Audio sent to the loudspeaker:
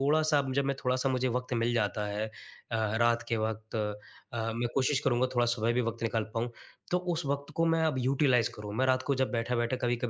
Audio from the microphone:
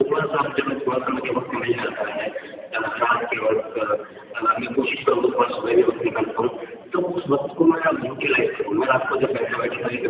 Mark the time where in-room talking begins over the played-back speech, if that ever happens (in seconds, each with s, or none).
none